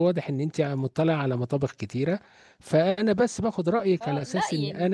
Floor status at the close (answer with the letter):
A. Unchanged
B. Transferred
B